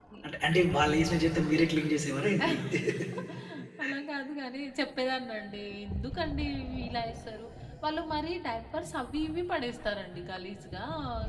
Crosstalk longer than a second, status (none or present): none